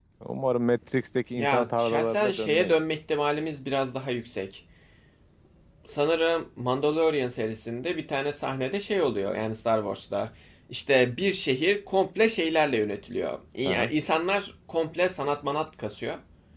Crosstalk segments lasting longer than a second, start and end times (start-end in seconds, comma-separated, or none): 1.4-2.7